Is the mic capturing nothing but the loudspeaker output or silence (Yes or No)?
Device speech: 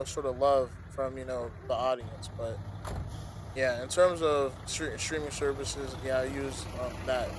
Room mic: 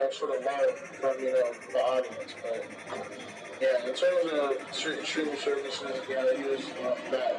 Yes